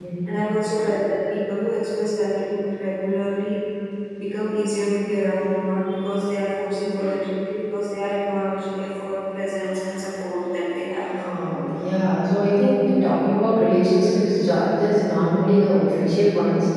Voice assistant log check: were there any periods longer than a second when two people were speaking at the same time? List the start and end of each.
none

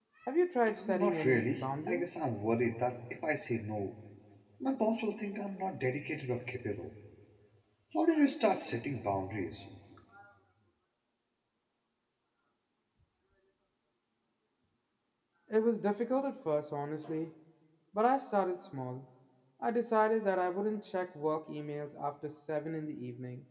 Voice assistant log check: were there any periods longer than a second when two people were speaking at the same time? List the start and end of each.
0.9-2.1

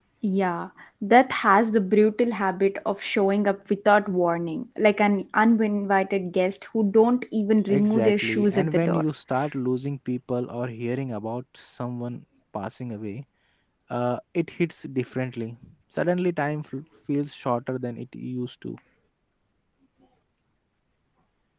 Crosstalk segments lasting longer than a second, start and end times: 7.7-9.0

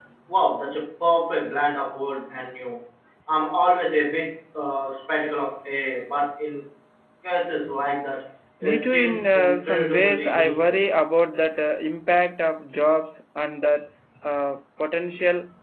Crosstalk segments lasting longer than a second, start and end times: 8.6-10.8

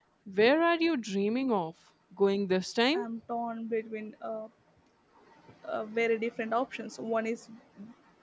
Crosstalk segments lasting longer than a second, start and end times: none

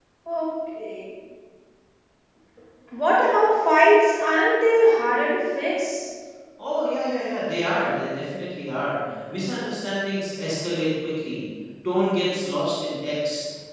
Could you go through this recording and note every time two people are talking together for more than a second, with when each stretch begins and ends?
none

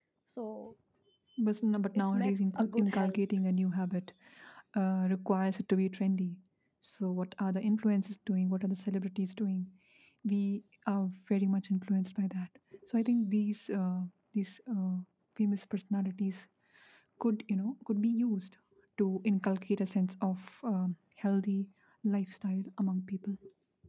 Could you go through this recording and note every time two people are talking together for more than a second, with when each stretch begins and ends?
1.9-3.2

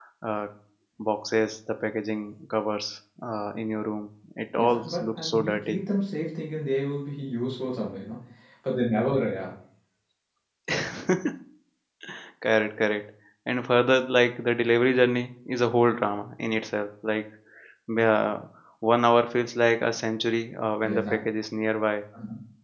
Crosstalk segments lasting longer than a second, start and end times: 4.6-5.8

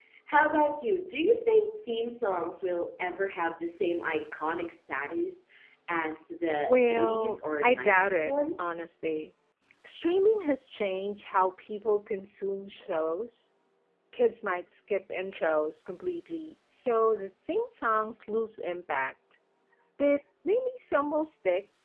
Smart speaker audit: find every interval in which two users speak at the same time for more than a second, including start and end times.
6.7-8.3

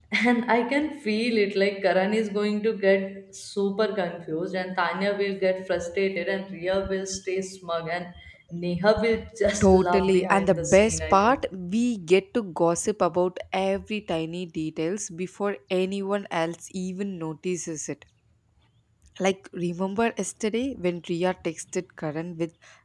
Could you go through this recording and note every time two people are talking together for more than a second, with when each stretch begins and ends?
9.6-11.4

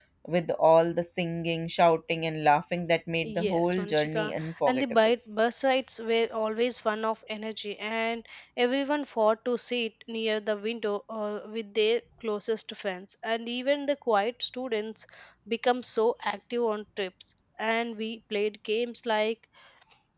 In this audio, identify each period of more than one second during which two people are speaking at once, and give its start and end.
3.2-4.8

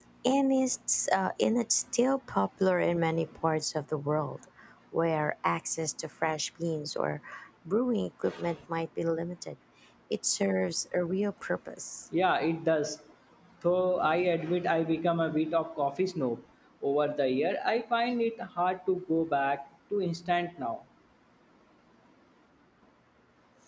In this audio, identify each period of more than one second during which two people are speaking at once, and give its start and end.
none

